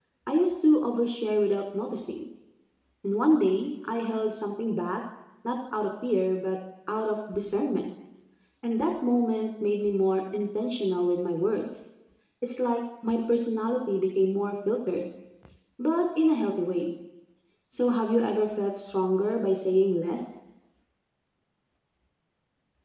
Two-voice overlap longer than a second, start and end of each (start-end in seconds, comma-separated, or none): none